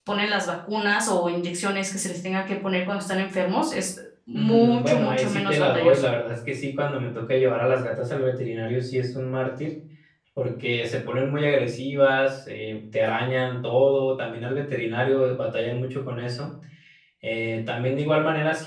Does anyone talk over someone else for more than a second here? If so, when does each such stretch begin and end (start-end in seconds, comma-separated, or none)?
4.3-6.1